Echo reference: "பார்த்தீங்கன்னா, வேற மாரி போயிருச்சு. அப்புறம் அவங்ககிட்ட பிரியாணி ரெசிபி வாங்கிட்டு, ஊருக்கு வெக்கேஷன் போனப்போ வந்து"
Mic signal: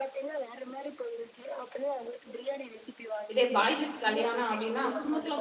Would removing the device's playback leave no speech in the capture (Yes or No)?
No